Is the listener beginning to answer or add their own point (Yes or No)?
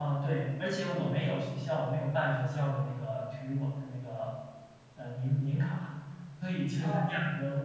No